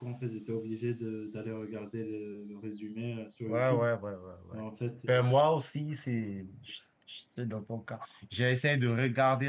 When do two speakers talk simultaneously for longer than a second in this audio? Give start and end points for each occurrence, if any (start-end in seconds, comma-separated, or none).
none